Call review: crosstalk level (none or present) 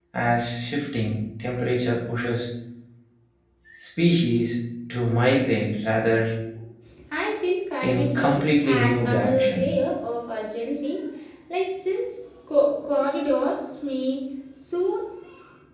present